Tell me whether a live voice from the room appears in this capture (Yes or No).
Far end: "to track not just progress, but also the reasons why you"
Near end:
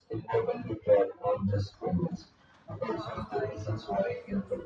Yes